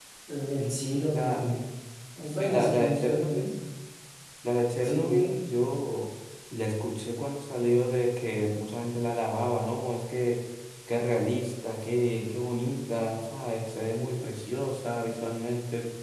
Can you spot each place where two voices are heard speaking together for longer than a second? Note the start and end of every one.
2.3-3.5

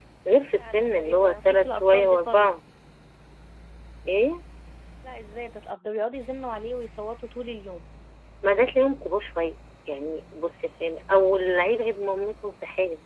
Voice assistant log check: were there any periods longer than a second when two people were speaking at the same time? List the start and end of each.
0.6-2.5

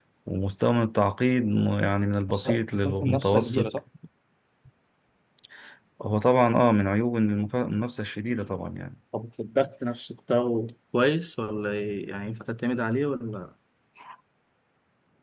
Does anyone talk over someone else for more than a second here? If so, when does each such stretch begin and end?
2.3-3.7

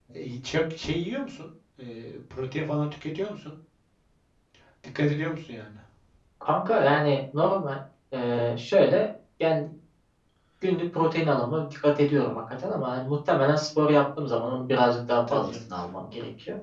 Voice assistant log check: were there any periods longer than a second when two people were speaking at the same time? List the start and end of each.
none

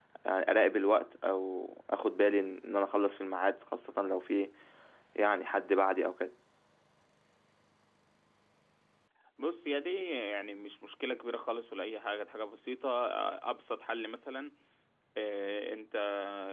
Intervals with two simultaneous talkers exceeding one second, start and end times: none

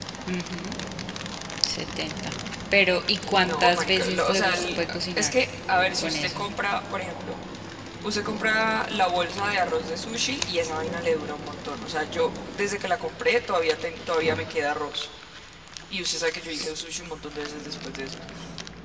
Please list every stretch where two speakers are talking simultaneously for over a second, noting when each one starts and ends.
3.4-5.3

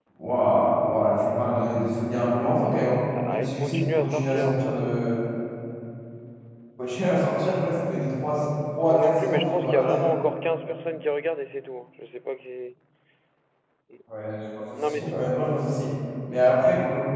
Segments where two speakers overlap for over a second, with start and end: 3.2-4.6, 8.9-10.1

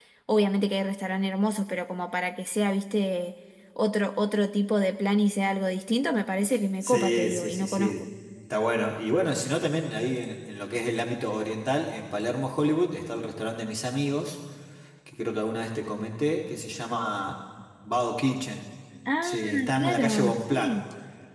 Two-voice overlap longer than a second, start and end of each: 6.8-8.0, 19.2-20.8

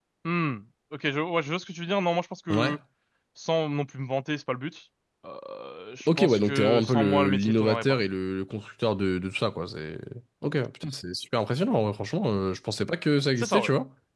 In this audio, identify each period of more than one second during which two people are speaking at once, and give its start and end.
6.0-8.0

